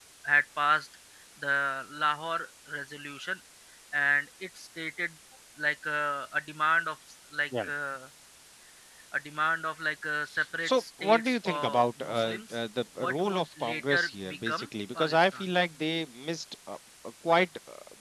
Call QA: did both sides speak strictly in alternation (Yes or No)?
No